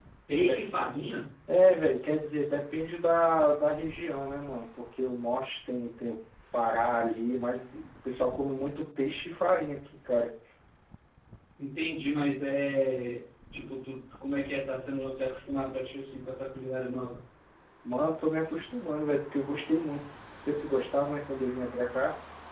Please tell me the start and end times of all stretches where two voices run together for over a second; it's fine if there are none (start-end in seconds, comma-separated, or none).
none